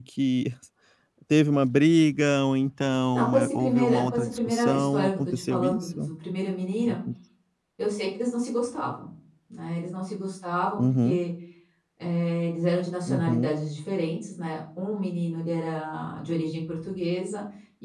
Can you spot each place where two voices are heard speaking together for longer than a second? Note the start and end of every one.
3.1-6.1

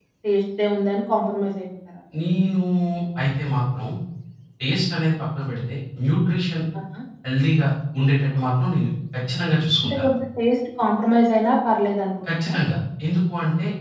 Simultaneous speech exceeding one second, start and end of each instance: none

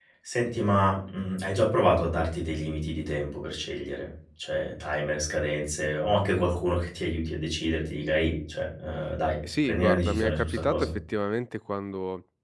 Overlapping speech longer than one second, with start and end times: 9.6-10.9

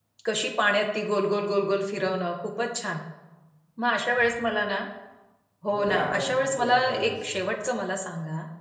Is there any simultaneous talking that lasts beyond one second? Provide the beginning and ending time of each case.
5.7-7.2

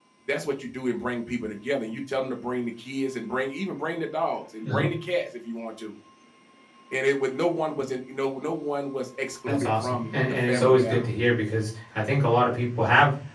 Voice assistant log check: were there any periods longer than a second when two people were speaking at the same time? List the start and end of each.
9.5-11.1

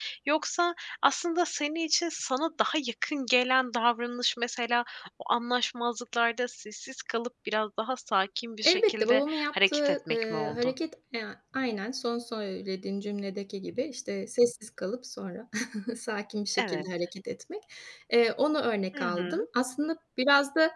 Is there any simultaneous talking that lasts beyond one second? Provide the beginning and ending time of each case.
8.6-10.7

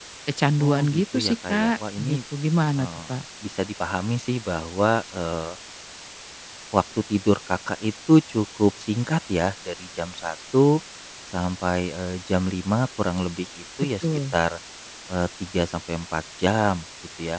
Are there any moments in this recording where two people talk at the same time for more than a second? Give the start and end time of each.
0.6-2.2

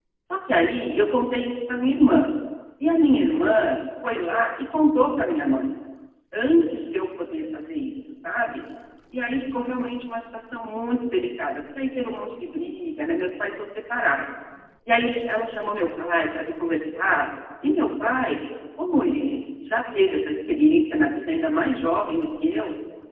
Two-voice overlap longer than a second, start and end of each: none

